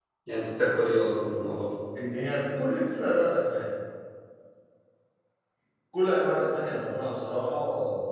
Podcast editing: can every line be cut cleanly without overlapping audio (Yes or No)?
Yes